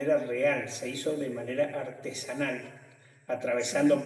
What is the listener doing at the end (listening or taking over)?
listening